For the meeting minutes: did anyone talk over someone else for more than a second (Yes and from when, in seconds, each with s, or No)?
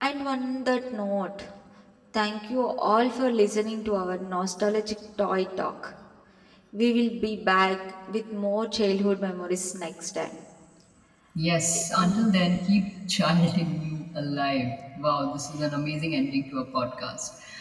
No